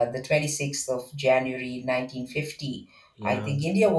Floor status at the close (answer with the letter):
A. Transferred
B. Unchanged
B